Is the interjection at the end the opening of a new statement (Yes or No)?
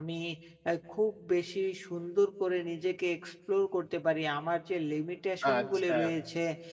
No